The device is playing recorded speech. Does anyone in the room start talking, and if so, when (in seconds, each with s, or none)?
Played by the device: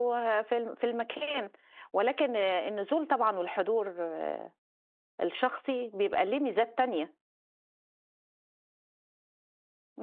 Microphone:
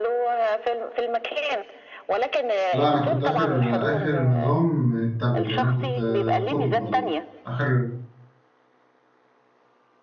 2.7 s